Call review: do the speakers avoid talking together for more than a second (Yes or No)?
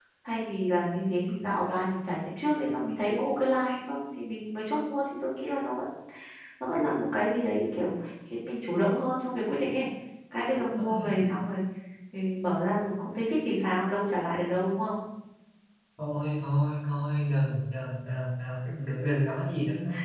Yes